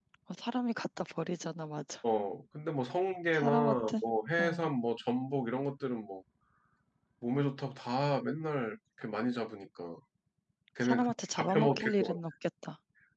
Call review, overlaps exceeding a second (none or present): present